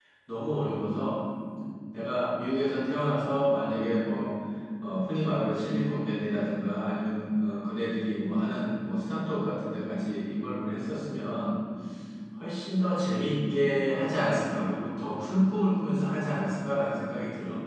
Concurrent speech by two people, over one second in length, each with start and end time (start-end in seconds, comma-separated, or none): none